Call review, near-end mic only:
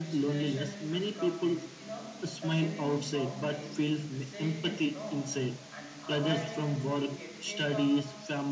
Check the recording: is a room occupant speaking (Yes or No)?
Yes